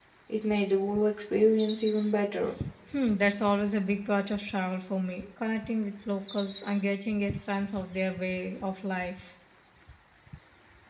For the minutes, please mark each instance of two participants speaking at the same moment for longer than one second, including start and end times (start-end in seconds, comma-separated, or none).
none